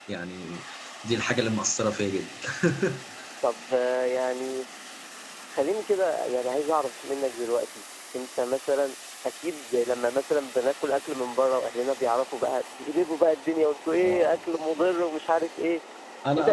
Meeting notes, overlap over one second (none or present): none